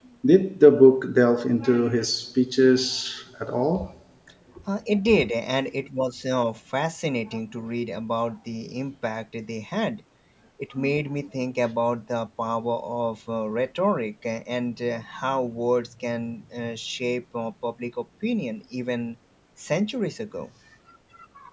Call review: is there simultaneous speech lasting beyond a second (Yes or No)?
No